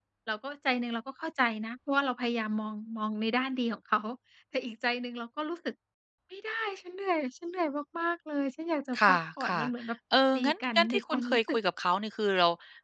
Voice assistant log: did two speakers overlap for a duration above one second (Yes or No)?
Yes